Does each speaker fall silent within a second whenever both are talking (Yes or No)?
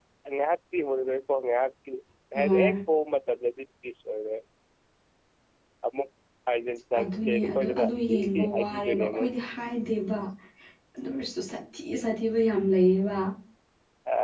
No